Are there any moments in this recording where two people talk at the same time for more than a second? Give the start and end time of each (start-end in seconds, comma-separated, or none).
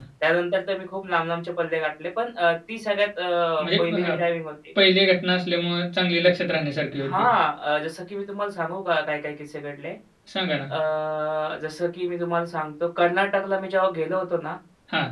none